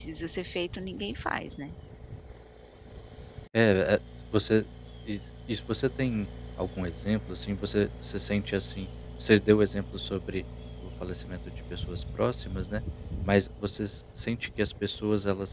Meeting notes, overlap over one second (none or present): none